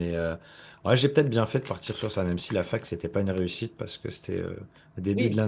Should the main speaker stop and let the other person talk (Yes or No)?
No